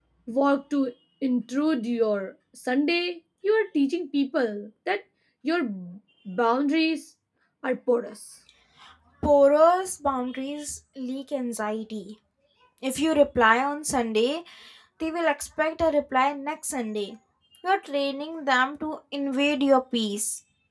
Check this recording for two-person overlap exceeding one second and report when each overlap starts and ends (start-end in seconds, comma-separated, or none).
none